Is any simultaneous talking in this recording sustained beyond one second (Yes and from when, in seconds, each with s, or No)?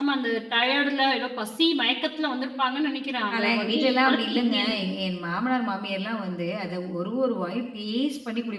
Yes, from 3.3 s